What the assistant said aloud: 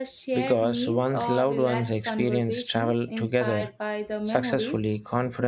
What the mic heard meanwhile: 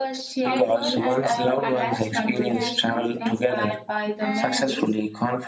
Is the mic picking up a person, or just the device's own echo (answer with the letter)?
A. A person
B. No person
A